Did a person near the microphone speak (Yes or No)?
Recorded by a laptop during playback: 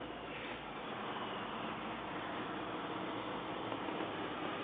No